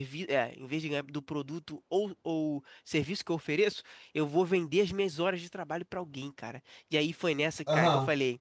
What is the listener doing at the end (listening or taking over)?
listening